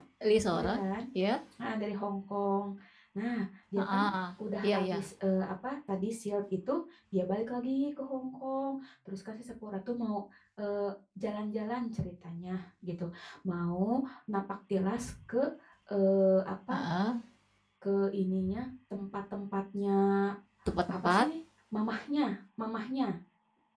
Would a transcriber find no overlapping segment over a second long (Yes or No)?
Yes